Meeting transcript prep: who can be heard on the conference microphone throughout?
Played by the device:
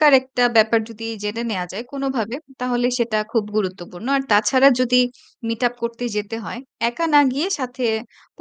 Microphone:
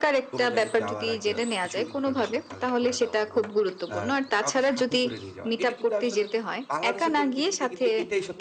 both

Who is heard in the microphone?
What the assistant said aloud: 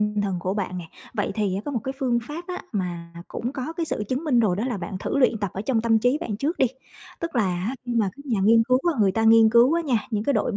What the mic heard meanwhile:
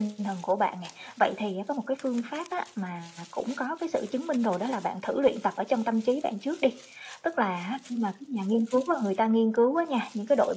echo only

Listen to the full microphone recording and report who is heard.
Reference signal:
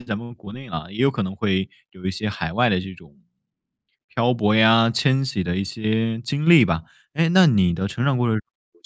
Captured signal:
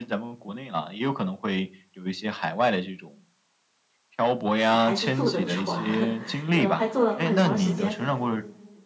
both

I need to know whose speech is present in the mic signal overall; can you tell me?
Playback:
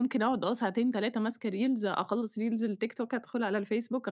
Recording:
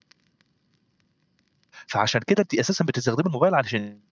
user only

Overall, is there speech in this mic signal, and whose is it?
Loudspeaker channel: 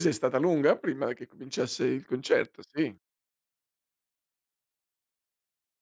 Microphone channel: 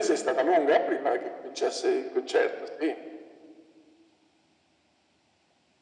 echo only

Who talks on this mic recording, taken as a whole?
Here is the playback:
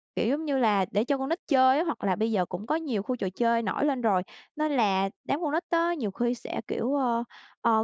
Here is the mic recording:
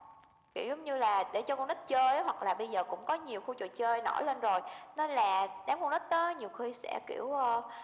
echo only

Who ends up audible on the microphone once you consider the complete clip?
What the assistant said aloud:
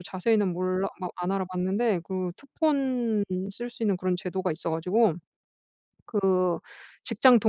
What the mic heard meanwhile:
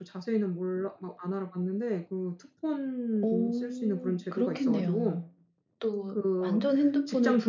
both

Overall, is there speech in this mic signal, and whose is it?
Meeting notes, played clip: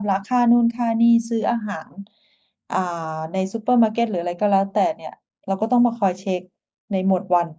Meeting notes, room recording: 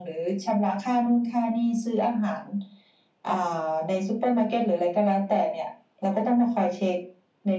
echo only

